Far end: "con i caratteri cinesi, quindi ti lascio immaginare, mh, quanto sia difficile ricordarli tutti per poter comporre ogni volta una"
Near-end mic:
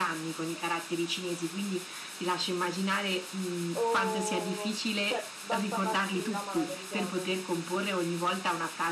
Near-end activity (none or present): present